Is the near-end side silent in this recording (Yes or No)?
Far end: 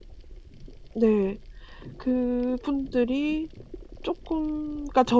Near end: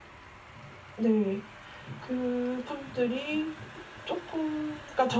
Yes